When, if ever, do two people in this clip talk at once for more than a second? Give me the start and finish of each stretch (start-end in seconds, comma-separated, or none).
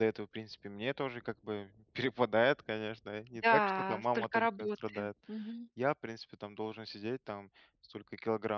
3.4-5.1